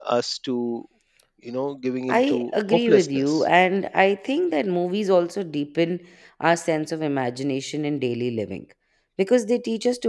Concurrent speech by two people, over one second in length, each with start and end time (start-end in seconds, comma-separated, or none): 2.1-3.4